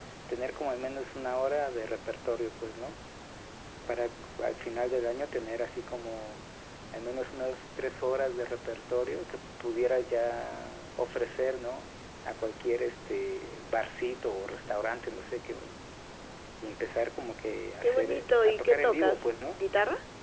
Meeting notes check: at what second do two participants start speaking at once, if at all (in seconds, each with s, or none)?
17.8 s